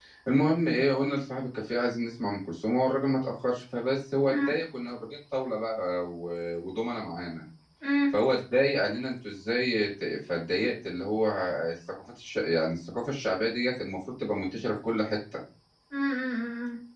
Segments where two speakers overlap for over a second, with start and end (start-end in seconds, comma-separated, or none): none